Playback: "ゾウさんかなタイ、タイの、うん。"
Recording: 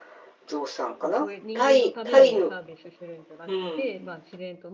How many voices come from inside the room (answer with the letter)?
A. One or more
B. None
A